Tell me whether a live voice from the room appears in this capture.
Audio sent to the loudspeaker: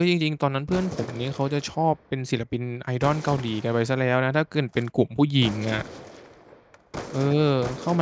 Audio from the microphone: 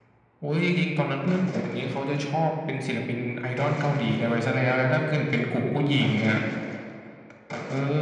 No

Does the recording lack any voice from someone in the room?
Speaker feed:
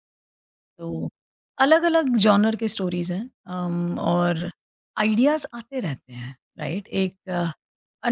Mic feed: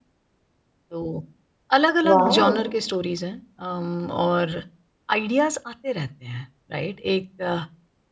No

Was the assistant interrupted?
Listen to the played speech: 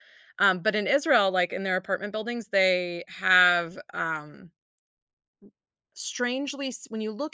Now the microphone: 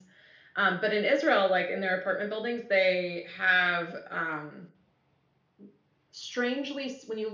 No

